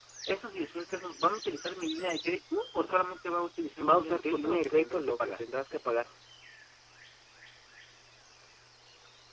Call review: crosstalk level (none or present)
present